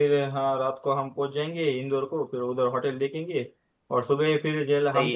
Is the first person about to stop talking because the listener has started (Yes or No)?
No